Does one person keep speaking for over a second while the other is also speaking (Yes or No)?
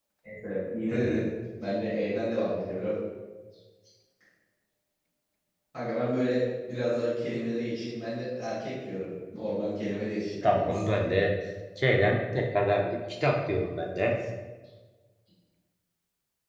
No